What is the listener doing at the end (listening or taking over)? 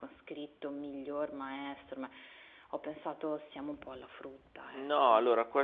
taking over